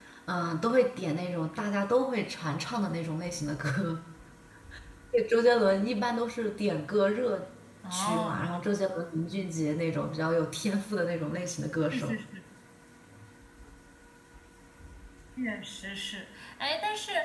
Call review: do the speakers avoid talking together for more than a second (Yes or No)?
Yes